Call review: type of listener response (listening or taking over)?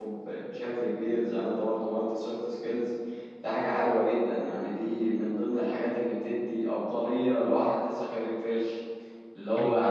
listening